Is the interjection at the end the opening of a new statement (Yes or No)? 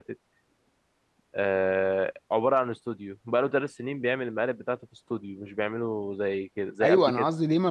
Yes